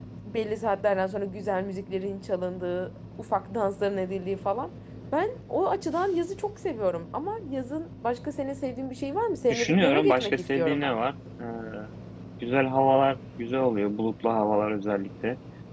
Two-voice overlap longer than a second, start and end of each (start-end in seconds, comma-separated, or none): 9.5-11.0